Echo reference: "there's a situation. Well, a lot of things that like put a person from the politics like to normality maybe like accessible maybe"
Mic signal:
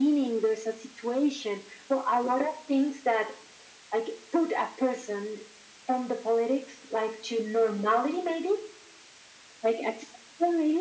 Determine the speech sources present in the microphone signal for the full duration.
echo only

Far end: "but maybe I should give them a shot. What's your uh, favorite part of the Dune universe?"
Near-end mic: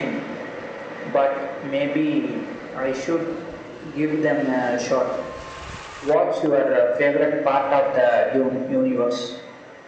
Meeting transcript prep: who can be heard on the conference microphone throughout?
echo only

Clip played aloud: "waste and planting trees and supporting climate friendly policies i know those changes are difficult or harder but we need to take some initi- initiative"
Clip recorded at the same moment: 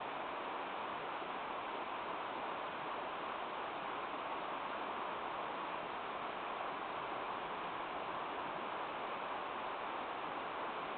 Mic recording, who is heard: neither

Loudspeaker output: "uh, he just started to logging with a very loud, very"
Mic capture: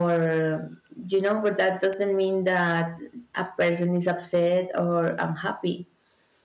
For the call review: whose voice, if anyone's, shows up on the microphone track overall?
user only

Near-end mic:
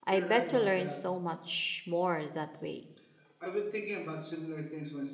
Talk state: both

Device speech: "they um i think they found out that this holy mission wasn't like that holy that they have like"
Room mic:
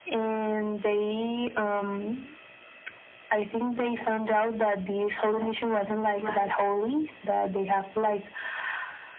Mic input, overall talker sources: both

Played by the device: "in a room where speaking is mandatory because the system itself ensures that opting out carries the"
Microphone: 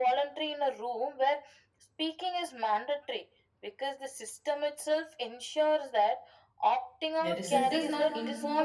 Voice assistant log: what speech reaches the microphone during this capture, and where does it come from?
both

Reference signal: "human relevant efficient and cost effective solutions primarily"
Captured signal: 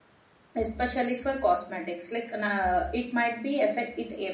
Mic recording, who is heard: user only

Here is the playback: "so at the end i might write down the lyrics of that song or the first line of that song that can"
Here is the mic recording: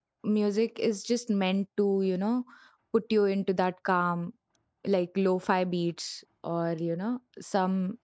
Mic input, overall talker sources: user only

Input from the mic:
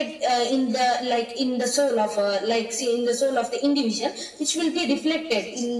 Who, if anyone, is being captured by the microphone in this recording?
echo only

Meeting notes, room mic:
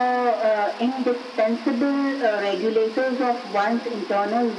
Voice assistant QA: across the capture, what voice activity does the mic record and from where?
echo only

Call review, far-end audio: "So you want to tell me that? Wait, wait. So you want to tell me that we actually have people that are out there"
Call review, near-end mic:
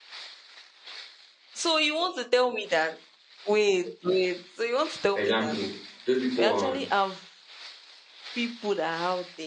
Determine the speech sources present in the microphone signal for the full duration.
both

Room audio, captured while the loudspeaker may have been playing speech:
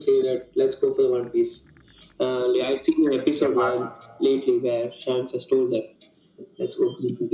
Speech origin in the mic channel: both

